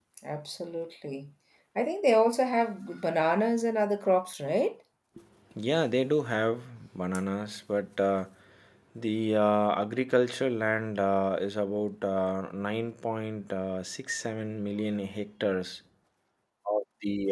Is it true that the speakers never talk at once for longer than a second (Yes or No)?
Yes